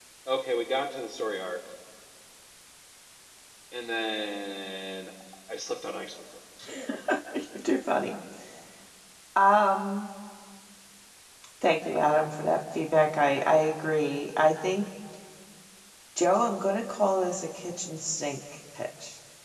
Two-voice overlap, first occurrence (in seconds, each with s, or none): none